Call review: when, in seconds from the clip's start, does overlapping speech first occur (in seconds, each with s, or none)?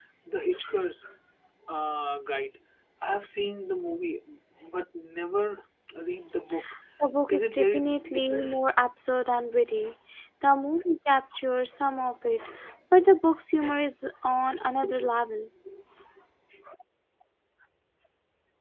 7.3 s